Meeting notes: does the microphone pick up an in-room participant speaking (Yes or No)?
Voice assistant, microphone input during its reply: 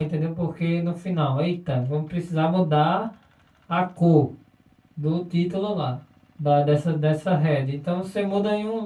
Yes